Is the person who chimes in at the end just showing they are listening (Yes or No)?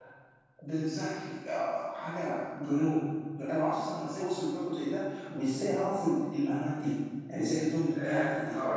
No